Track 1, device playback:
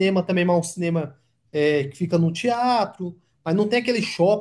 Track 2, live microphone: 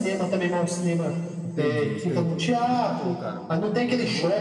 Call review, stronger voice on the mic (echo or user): echo